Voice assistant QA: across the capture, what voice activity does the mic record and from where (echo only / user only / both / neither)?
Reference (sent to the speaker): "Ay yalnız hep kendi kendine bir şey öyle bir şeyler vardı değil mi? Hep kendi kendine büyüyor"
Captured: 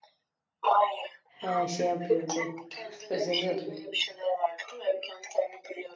both